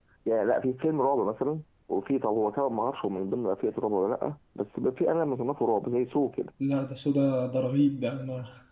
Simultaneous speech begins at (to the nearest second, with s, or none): none